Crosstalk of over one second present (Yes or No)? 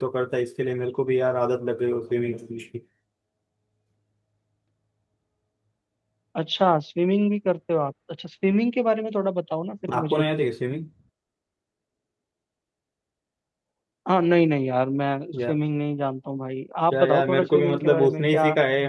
Yes